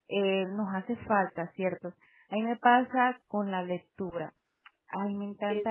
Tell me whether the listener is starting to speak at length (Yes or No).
No